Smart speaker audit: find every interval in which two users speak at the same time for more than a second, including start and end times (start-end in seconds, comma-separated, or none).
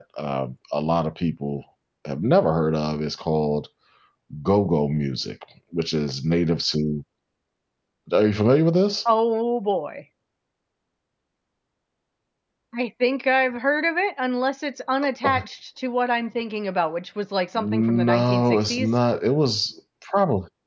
17.6-19.0